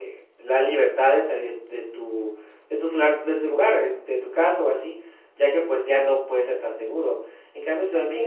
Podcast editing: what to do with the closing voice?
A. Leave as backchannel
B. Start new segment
A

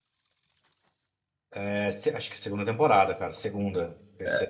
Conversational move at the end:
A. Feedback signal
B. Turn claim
B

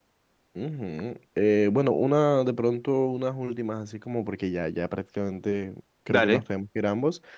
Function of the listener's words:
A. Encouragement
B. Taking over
A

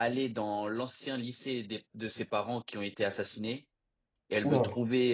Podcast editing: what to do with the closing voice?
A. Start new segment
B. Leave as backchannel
B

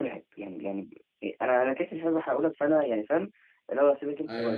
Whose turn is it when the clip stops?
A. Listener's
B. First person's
B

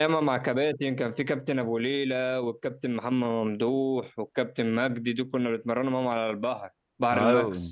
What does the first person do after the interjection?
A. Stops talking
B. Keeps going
A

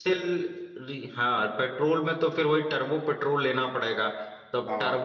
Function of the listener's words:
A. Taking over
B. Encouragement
B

